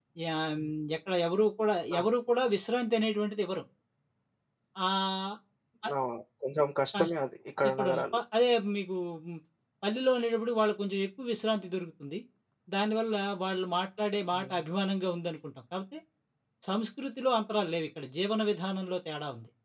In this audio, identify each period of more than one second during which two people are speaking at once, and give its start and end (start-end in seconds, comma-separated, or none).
none